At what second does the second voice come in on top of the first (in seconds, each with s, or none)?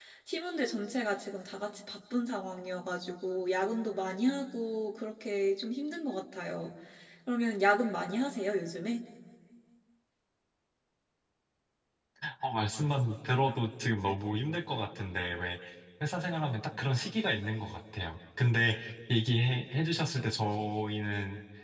none